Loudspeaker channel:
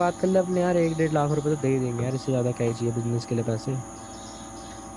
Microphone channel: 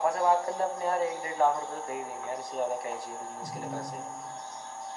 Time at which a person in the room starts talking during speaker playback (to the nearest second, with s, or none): 3 s